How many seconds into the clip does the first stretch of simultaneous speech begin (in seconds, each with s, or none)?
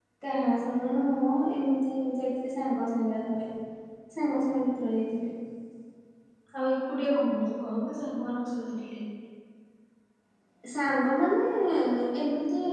none